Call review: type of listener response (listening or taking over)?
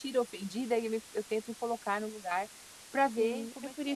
taking over